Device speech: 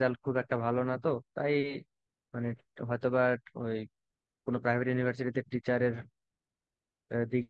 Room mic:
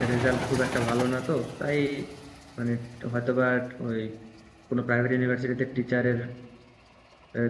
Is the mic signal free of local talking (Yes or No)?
Yes